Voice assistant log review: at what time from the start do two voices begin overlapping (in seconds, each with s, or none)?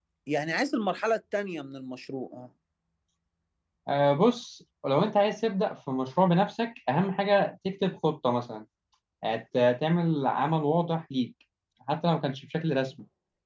none